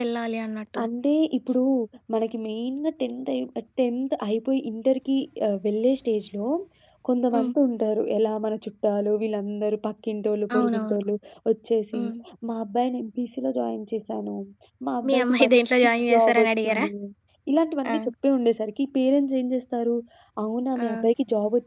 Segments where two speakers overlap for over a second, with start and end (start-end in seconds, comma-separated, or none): 15.1-16.8